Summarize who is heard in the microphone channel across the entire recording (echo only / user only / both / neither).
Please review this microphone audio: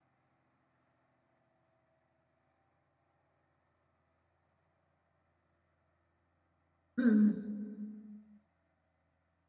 user only